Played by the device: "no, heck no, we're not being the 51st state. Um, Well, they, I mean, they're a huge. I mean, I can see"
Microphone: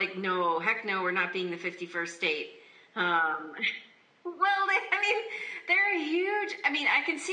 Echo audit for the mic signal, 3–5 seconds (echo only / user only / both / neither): echo only